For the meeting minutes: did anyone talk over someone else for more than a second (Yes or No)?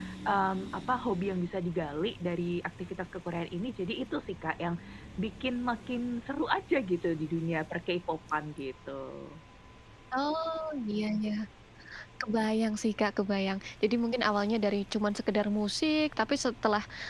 No